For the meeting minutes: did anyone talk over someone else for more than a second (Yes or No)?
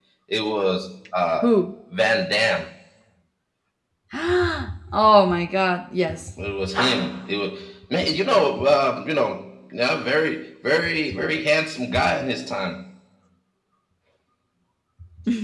No